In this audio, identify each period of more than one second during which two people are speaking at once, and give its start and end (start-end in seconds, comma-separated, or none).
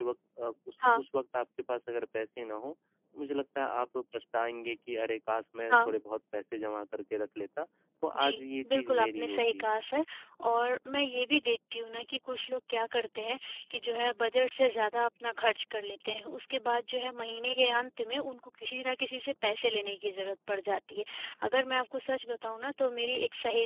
8.2-9.6